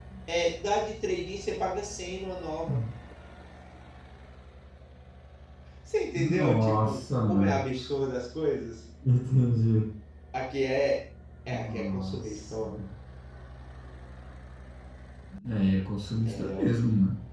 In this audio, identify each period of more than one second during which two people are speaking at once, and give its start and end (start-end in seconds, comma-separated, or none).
6.2-7.6, 11.5-12.8